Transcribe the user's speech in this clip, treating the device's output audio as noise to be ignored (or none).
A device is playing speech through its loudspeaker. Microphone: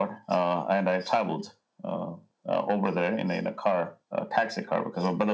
none